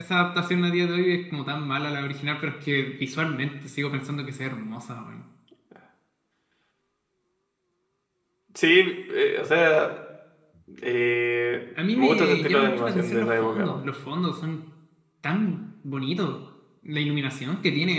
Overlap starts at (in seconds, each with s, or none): 11.8 s